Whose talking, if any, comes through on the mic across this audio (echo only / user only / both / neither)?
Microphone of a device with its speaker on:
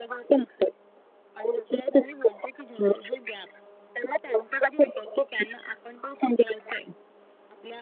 echo only